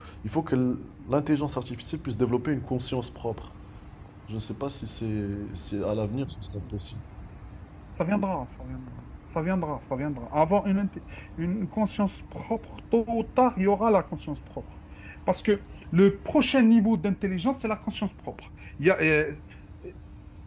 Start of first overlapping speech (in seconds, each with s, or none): none